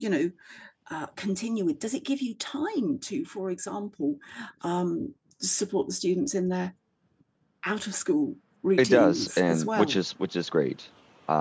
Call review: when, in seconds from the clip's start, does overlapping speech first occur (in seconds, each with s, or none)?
8.8 s